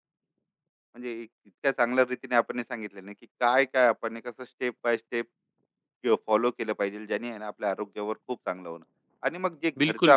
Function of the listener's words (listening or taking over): listening